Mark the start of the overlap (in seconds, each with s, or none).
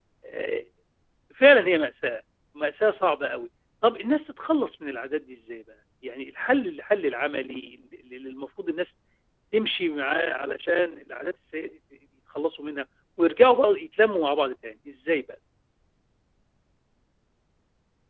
none